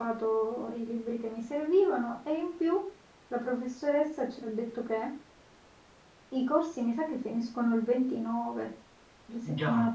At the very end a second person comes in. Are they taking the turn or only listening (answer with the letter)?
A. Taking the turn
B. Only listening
B